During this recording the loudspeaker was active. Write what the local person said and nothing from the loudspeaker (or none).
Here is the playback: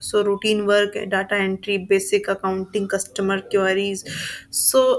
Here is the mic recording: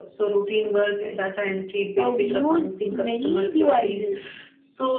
uh, we use many devices